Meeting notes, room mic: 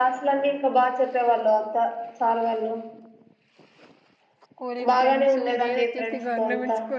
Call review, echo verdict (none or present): present